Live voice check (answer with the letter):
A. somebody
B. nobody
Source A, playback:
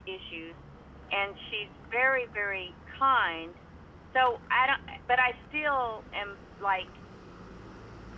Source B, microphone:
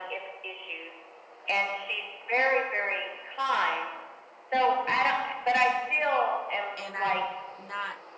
A